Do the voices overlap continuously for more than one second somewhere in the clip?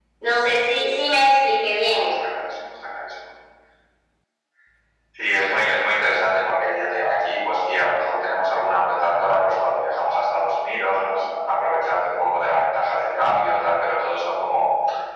No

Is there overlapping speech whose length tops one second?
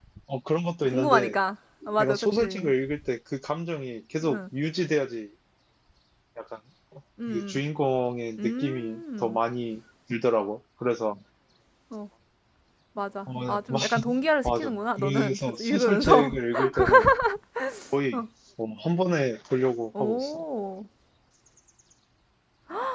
Yes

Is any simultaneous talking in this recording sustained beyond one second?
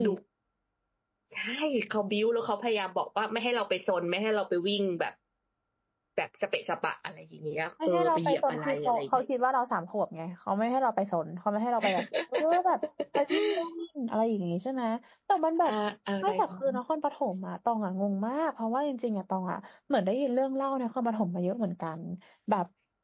Yes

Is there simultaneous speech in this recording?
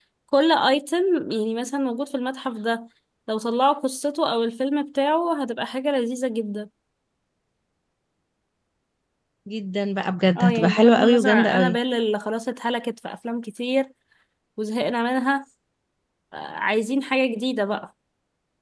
Yes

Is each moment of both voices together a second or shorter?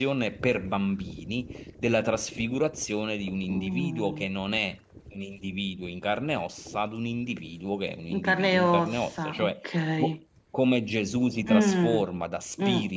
No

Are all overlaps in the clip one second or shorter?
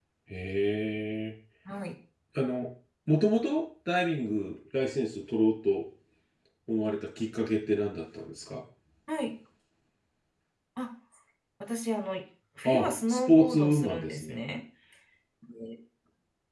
No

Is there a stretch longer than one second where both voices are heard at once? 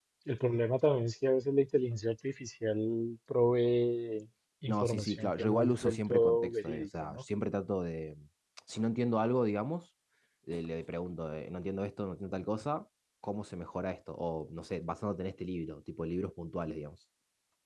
Yes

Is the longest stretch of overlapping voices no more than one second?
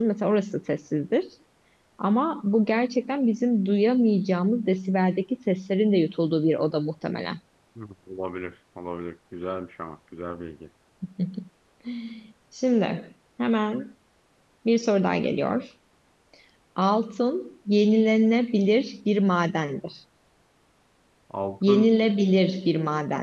Yes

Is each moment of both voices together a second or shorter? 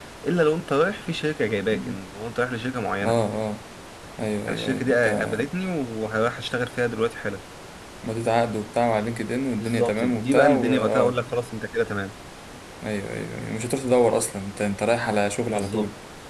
No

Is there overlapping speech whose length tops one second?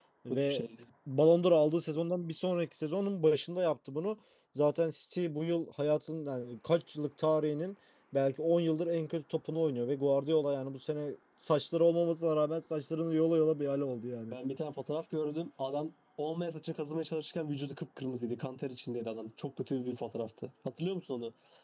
No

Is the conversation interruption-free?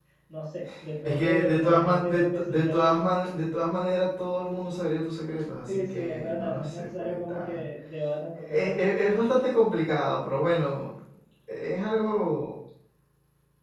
No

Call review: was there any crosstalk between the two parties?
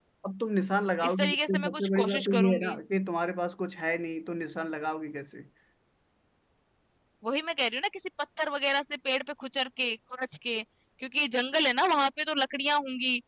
Yes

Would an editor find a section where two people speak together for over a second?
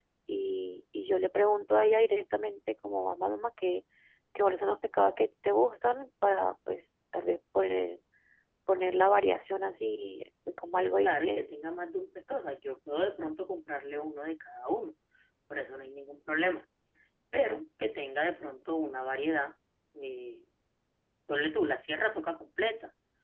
No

